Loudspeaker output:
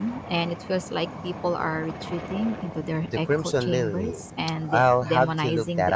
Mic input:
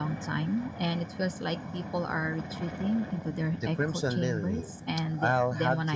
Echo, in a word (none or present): present